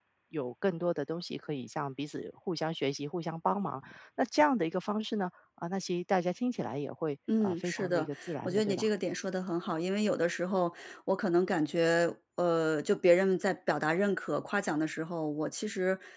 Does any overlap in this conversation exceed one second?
Yes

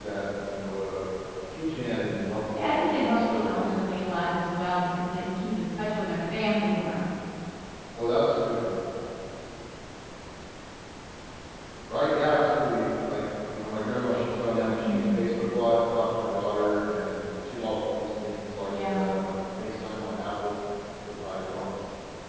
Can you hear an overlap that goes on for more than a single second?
Yes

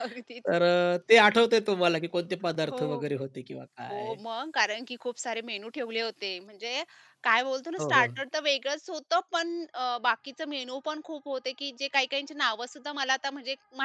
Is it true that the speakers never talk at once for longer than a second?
Yes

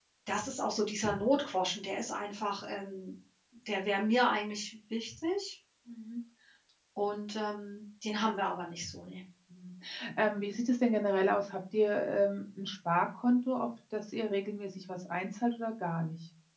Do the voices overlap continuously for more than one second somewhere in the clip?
No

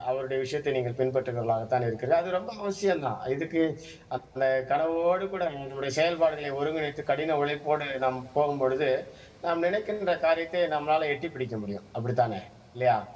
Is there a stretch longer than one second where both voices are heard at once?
No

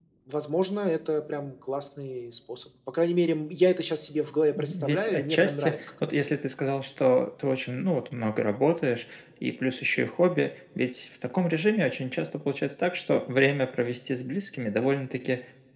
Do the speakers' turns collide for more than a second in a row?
Yes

